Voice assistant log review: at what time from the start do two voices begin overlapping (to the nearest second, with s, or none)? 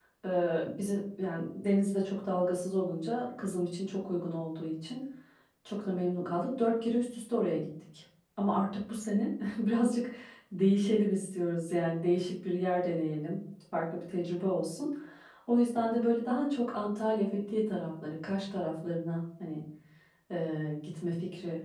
none